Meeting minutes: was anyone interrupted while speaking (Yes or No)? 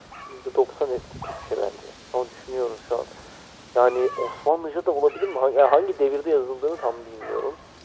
No